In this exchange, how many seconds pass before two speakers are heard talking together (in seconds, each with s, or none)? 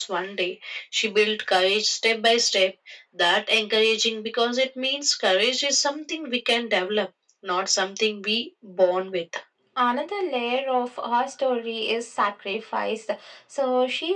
none